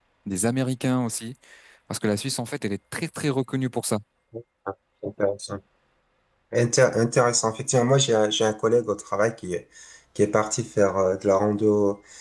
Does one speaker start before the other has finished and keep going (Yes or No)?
No